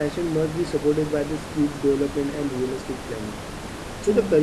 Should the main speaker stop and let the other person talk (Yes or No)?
No